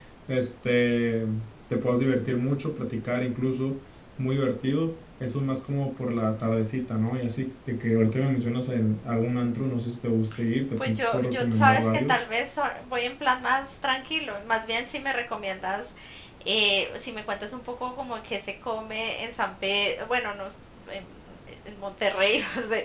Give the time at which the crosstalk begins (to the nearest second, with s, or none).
11 s